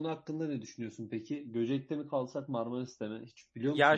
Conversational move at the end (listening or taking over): taking over